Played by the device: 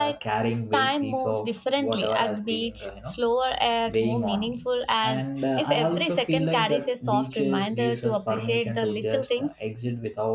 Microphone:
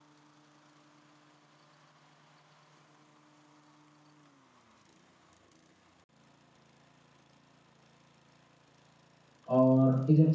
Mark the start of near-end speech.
9.4 s

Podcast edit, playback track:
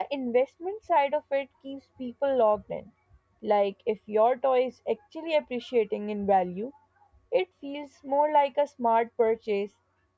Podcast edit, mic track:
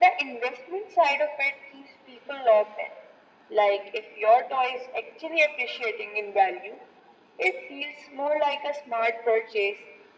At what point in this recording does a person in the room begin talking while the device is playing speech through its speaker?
none

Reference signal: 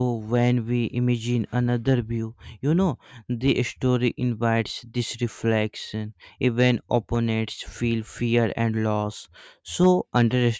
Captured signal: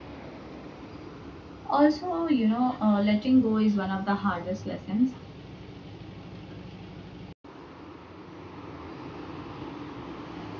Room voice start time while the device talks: 1.7 s

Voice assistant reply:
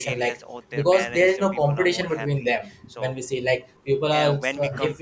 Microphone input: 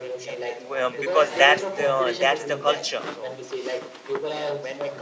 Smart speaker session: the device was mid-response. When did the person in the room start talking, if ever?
0.6 s

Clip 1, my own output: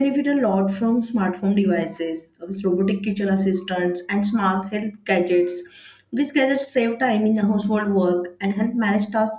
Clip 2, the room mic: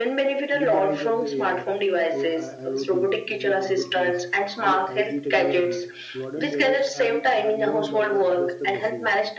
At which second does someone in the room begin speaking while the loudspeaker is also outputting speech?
0.5 s

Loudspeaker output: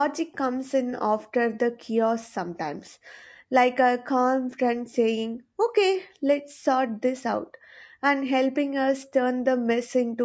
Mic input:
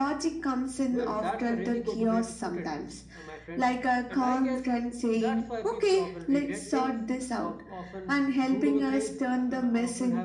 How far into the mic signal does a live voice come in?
0.9 s

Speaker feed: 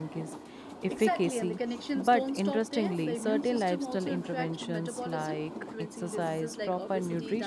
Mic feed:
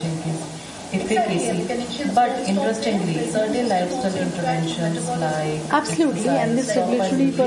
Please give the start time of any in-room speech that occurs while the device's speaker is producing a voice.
5.7 s

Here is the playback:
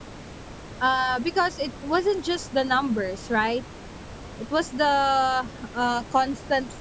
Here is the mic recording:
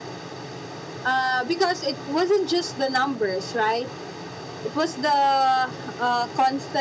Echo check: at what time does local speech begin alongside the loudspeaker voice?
none

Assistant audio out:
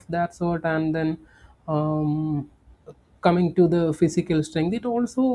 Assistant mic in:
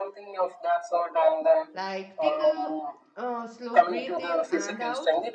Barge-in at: 1.7 s

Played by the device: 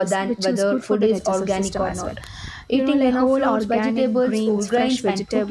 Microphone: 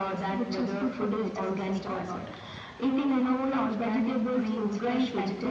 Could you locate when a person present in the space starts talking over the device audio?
none

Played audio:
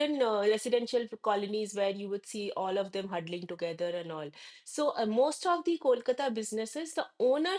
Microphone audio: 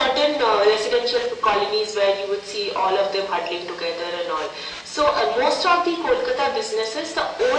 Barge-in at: none

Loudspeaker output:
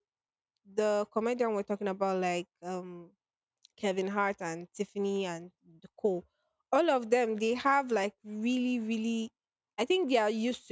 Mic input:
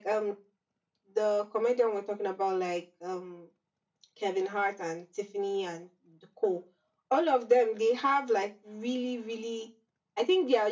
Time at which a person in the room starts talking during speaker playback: none

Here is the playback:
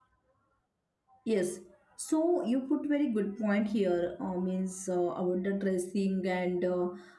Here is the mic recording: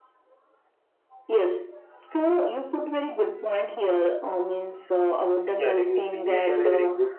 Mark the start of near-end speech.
5.5 s

